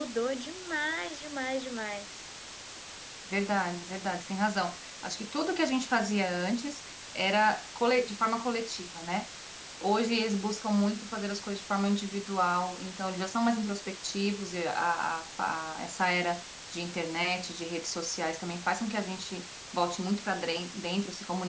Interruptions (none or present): none